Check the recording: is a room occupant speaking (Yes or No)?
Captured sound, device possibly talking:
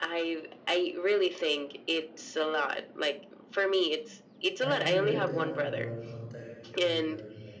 Yes